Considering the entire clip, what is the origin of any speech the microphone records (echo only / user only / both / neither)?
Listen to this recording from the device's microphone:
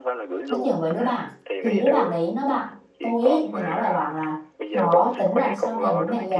both